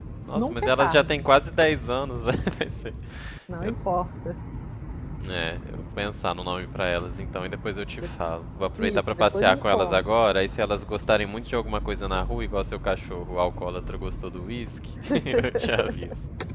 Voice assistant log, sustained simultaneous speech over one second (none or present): present